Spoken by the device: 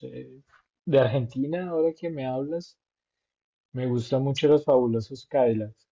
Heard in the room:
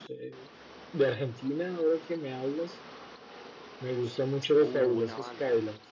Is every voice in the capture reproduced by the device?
No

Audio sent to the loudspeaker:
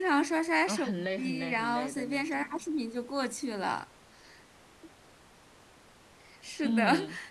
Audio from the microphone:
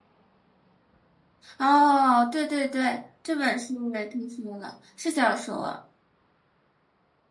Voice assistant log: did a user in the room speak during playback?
Yes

